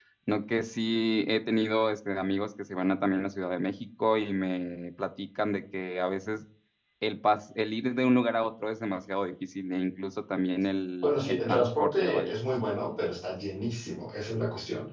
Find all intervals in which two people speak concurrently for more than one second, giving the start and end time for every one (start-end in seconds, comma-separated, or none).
11.0-12.4